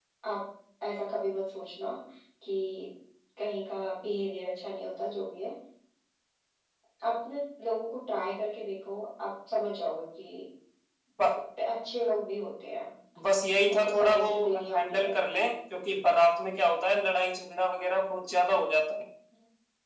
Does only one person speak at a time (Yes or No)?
No